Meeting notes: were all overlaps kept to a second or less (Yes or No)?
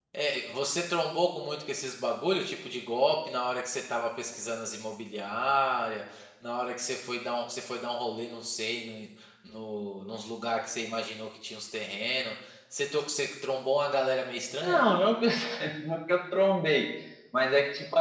Yes